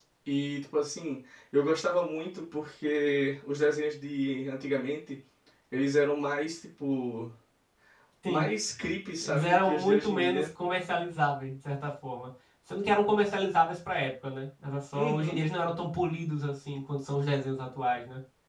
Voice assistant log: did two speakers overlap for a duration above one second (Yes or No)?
Yes